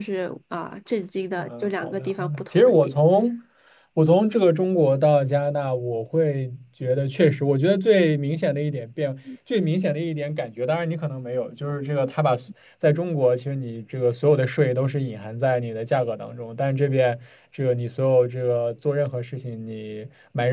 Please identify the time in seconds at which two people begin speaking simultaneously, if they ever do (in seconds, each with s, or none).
1.4 s